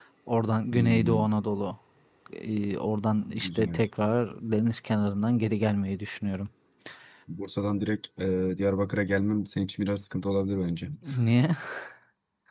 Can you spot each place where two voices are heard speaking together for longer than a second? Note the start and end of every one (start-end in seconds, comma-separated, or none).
none